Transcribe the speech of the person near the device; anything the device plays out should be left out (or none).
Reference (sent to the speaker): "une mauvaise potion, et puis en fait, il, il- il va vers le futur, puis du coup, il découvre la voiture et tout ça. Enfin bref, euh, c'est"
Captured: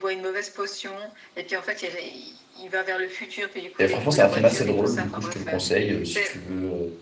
Et franchement, c'est un film assez drôle. Du coup, je te le conseille euh, si tu veux